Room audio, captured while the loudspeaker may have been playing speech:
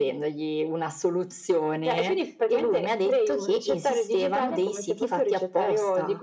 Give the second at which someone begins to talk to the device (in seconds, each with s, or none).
none